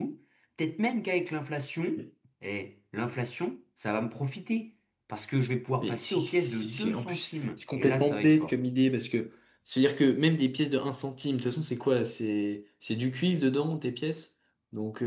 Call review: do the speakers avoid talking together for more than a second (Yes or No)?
No